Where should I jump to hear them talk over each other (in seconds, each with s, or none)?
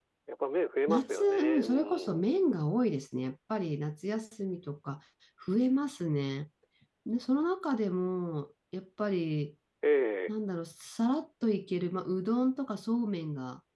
0.9 s